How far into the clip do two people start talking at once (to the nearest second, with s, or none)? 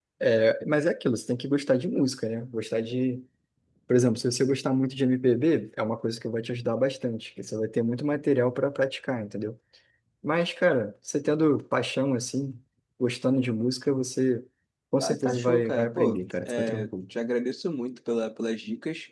15 s